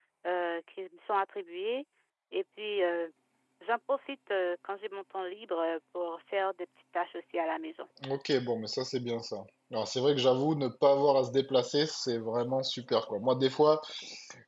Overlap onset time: none

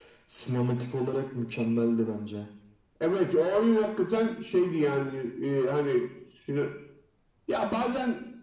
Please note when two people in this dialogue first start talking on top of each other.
none

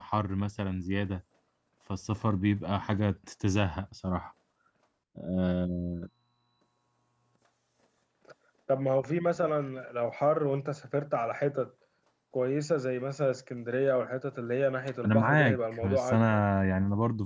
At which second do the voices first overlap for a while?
15 s

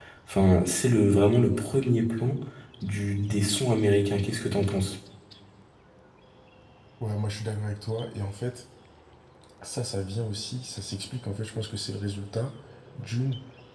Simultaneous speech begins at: none

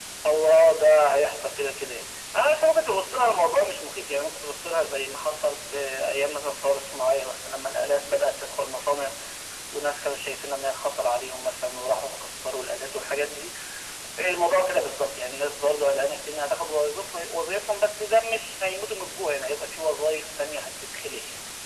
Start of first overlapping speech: none

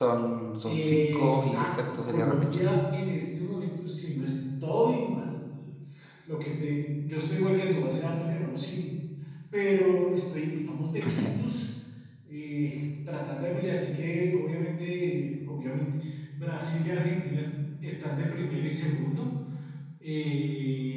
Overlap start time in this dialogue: 1 s

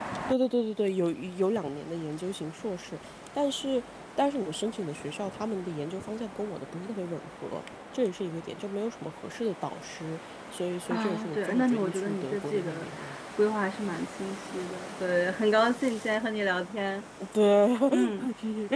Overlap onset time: 11 s

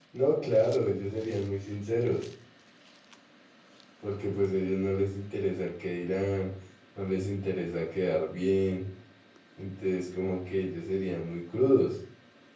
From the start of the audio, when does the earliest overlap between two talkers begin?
none

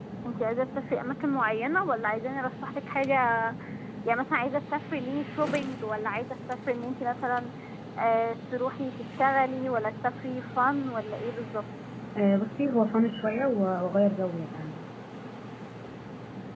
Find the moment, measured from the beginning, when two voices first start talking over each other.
none

